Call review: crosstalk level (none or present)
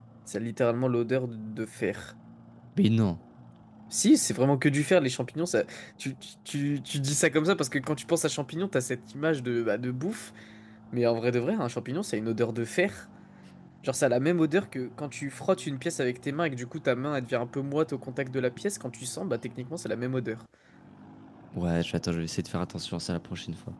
none